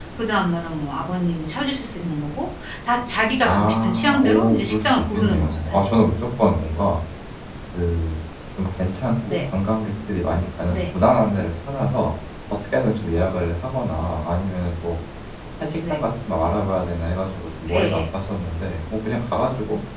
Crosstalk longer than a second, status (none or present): present